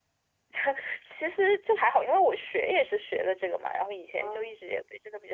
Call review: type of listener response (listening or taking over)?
listening